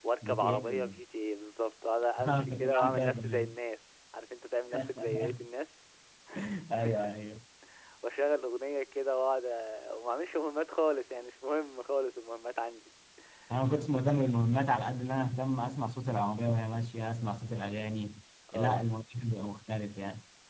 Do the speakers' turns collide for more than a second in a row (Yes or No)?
Yes